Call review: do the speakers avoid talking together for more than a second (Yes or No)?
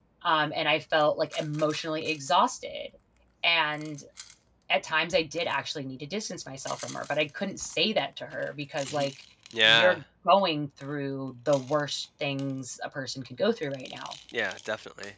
Yes